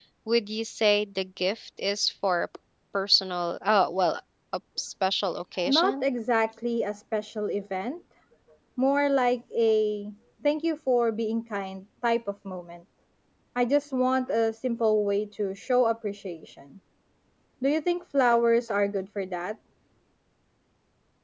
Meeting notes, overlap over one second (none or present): none